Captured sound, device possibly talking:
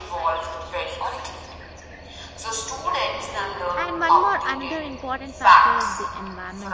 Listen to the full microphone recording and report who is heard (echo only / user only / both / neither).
both